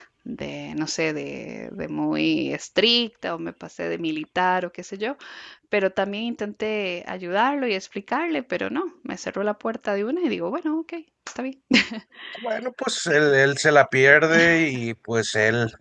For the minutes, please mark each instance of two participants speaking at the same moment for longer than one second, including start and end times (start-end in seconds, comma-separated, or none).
none